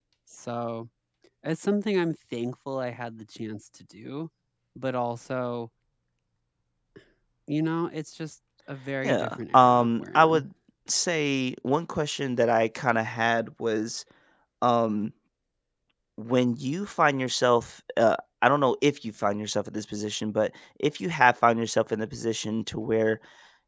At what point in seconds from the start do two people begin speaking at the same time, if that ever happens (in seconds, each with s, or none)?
9.0 s